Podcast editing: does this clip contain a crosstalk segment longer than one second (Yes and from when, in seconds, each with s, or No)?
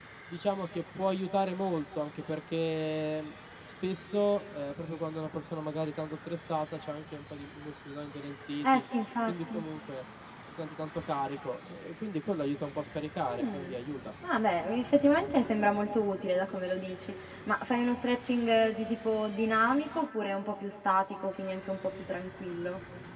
No